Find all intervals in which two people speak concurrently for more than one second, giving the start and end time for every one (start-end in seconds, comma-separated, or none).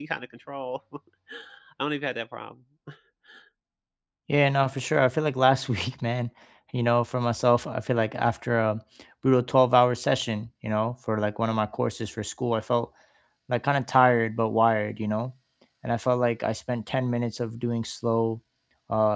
none